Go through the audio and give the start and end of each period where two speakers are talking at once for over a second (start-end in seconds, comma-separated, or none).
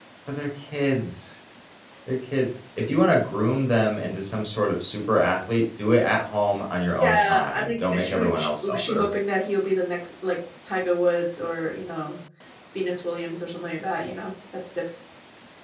7.0-9.1